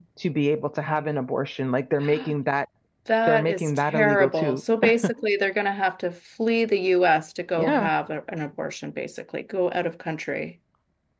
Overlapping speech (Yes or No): Yes